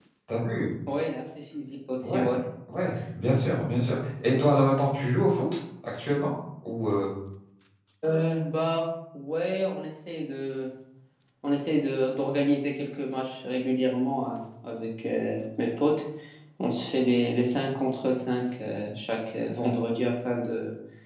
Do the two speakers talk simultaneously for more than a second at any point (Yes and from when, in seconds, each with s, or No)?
No